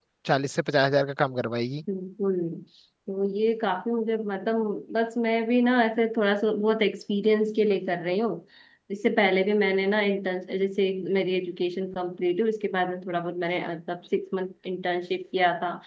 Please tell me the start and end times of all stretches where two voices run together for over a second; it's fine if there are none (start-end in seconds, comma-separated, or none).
none